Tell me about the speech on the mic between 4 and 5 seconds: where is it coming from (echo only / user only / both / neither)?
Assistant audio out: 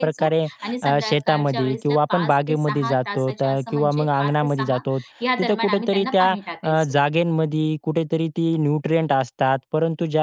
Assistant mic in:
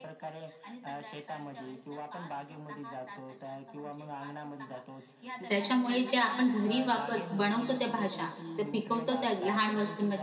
echo only